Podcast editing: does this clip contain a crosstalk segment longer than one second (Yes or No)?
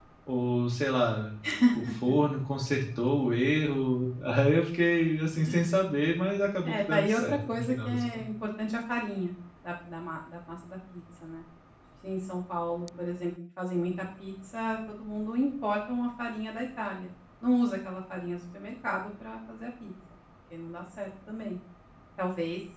Yes